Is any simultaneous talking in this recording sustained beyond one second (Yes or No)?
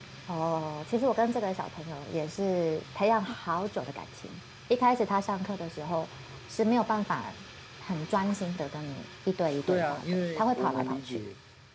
Yes